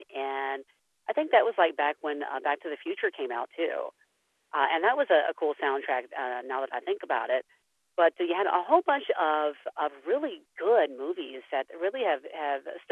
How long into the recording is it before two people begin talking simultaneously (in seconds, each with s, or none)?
none